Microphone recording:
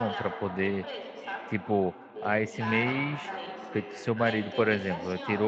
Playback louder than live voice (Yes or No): No